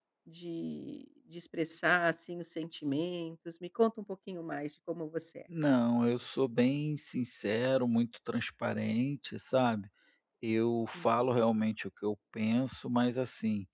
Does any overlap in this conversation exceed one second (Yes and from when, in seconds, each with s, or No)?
No